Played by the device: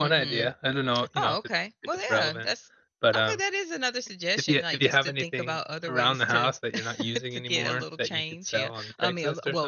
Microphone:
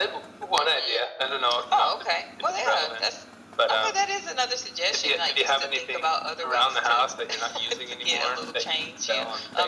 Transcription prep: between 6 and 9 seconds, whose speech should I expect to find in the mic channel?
echo only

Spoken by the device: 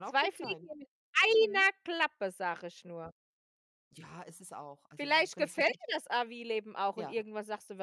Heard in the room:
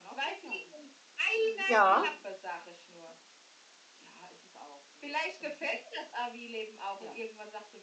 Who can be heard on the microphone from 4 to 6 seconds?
echo only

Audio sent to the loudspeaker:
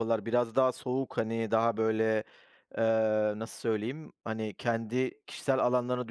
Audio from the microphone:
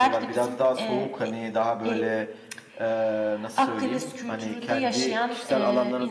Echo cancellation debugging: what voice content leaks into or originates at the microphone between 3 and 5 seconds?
both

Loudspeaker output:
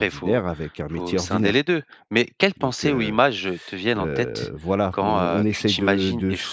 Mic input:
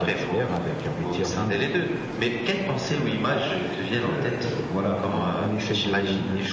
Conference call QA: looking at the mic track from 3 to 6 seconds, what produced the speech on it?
echo only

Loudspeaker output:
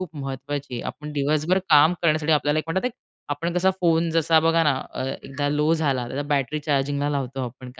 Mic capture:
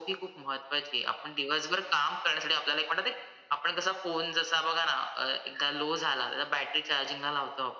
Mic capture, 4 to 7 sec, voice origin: echo only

